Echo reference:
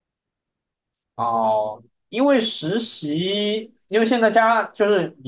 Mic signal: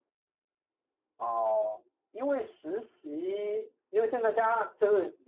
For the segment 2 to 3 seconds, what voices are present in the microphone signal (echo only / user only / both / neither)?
echo only